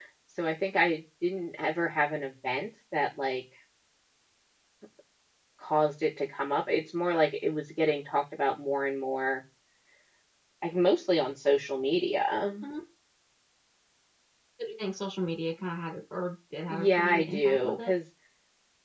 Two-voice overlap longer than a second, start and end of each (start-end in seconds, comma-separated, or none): 16.7-17.9